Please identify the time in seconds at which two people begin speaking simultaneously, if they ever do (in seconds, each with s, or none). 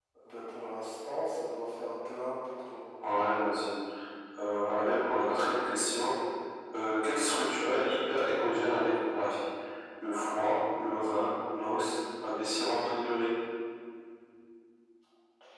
none